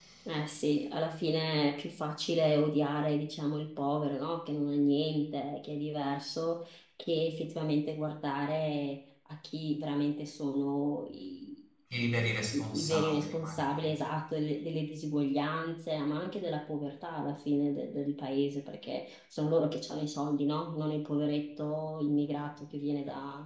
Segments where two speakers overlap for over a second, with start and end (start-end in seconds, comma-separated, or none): 12.5-13.9